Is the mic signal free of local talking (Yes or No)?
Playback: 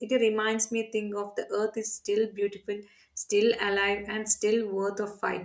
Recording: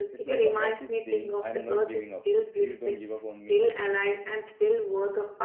No